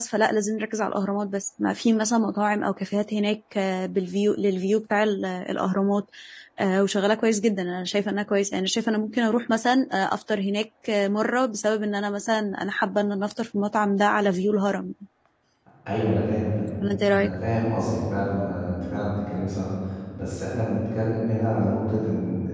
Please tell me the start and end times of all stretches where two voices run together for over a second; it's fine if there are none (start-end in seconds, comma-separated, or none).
none